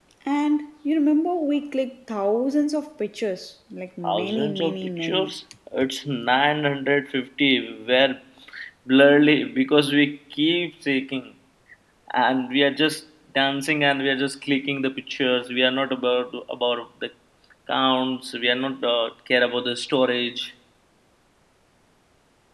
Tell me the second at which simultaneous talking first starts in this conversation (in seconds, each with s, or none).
4.0 s